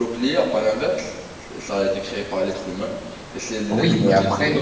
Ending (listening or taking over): taking over